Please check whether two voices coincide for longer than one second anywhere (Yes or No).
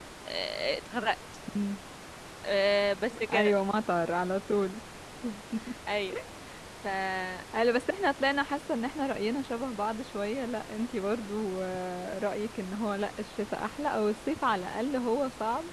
No